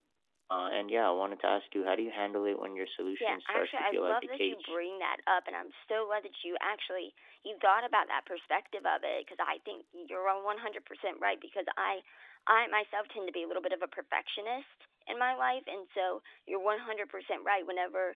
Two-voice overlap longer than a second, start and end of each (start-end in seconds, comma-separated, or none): 3.2-4.8